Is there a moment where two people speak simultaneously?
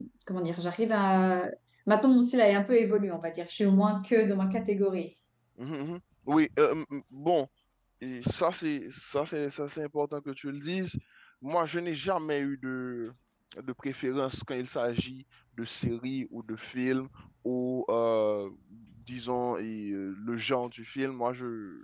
No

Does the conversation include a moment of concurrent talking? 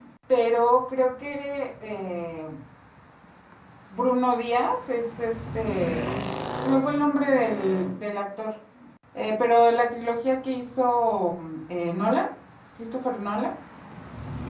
No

